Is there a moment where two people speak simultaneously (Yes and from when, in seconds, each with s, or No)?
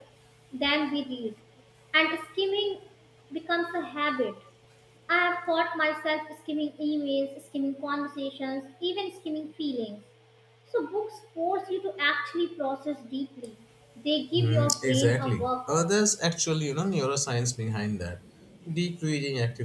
Yes, from 14.4 s